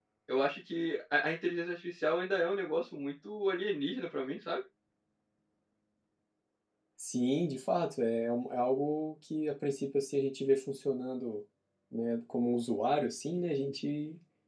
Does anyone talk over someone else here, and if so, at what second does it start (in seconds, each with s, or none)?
none